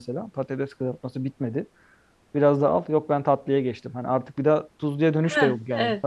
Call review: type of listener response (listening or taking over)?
taking over